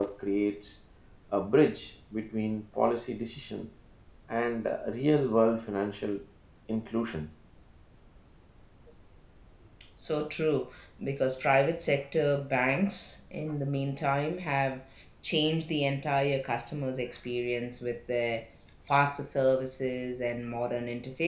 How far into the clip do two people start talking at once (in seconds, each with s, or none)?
none